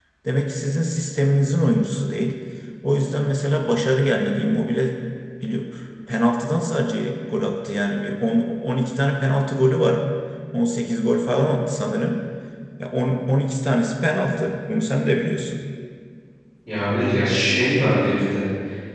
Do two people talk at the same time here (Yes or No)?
No